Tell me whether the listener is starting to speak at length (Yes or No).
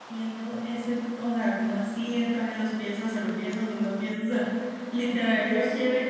No